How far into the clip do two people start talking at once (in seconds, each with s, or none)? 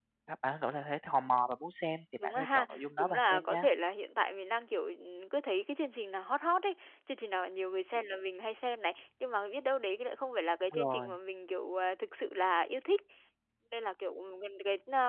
2.2 s